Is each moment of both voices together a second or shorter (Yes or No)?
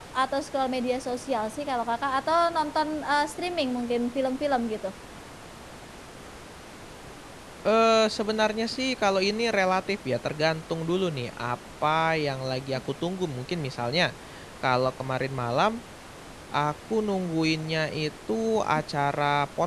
Yes